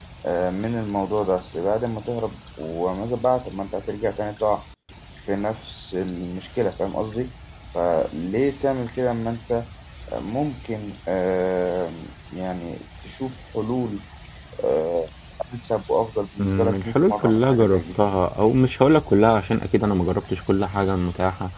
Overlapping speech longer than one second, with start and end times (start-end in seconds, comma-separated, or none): 16.4-17.8